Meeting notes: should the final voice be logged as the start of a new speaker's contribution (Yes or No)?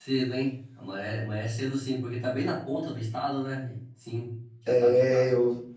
Yes